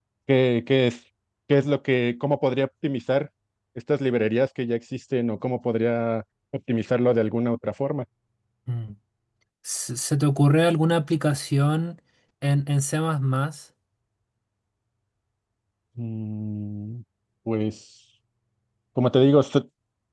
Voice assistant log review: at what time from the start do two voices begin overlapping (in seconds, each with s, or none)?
none